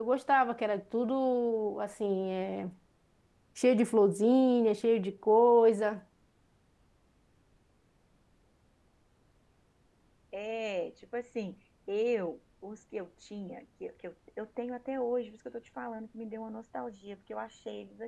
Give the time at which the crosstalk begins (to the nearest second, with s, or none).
none